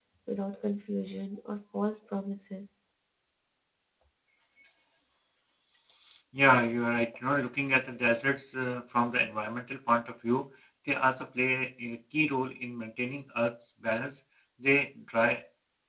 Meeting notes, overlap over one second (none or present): none